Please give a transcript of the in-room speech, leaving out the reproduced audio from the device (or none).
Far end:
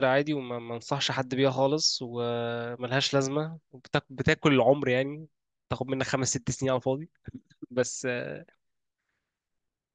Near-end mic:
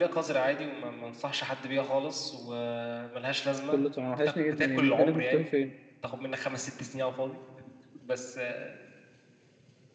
كله تمام وحشني جدا يا ابني فينك مختفي فين؟